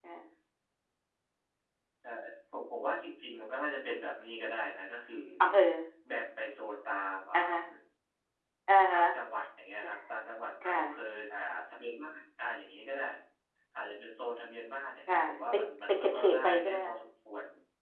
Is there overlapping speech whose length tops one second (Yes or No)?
Yes